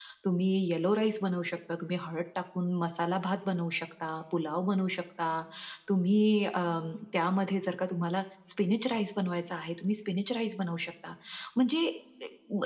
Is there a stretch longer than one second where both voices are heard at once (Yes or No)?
No